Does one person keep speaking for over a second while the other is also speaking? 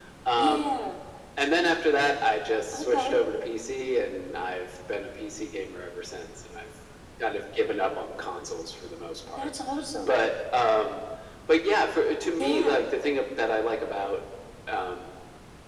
No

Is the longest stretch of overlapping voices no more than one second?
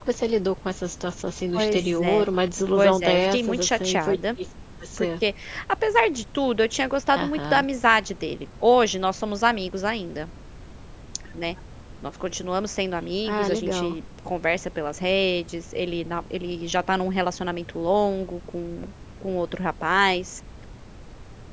No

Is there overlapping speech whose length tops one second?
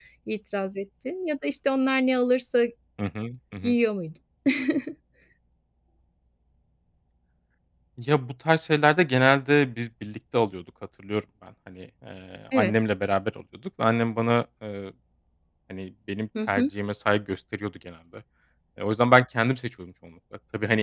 No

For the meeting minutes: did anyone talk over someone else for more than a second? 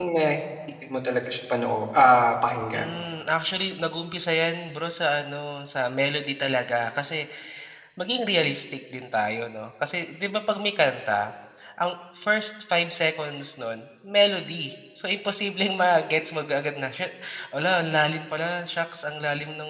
No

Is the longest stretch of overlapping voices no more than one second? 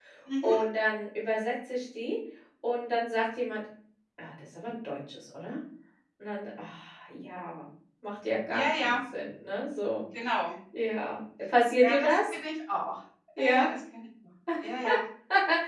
Yes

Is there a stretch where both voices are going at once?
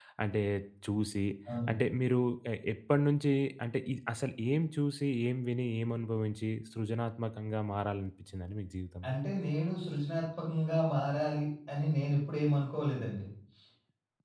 No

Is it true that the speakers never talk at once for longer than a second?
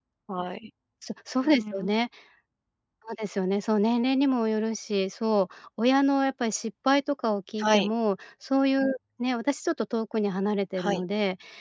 Yes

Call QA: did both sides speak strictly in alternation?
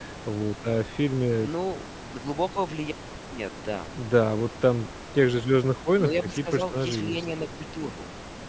No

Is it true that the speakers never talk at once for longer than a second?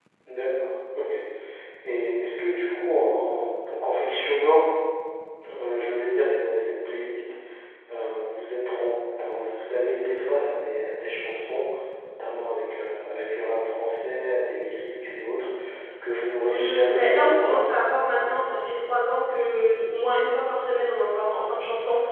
No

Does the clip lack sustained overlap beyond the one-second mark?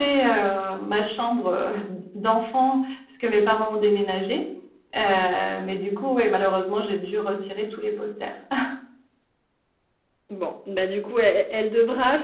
Yes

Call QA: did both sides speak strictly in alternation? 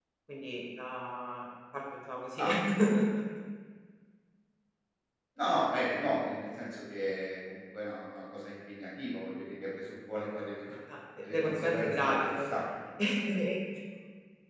No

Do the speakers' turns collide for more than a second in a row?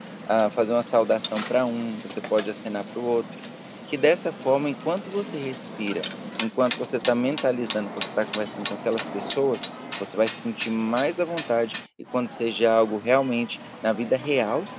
No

